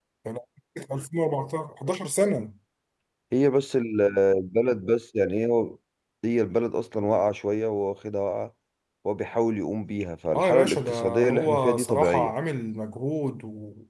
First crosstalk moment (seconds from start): 10.3 s

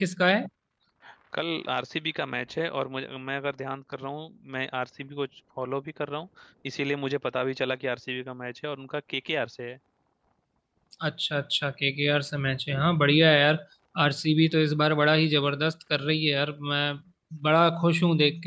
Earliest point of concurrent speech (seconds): none

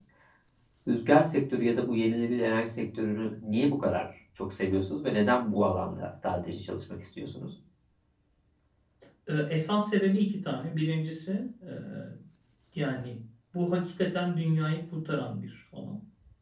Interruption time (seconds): none

